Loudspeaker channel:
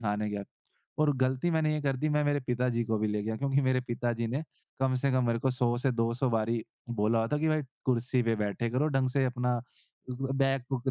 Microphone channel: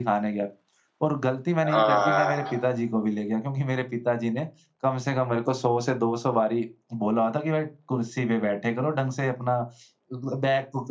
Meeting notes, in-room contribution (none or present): present